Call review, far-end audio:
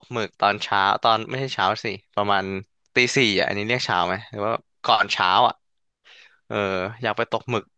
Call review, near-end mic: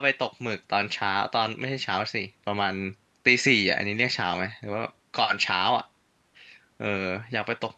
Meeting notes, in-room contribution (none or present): none